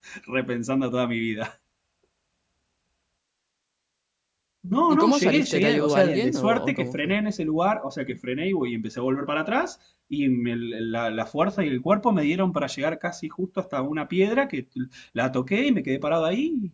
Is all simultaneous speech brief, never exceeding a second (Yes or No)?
No